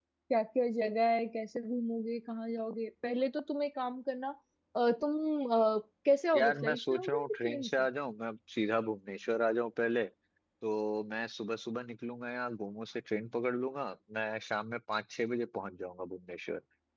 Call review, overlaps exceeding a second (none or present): present